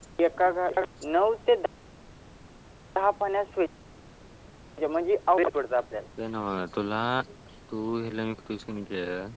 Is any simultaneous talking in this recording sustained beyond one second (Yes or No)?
No